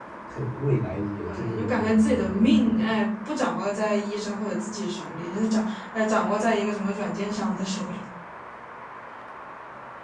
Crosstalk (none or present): present